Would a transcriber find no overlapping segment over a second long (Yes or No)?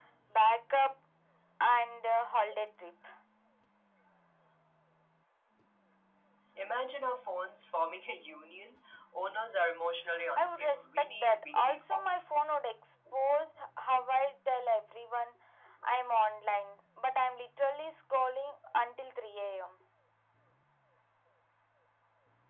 No